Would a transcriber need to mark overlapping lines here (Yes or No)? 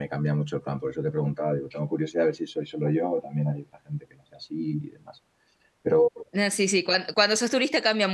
No